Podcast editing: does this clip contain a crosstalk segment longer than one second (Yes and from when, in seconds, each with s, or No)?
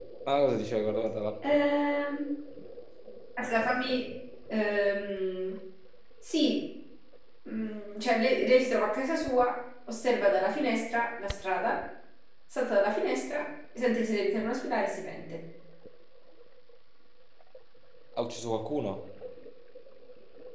No